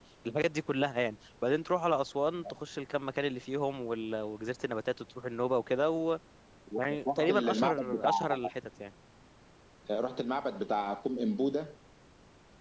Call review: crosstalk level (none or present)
present